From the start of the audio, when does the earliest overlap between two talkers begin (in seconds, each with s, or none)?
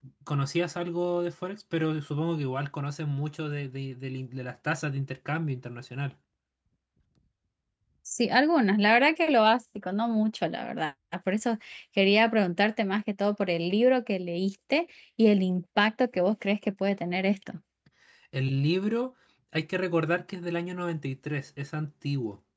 none